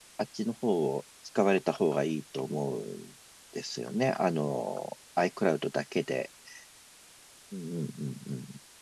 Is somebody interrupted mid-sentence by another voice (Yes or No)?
No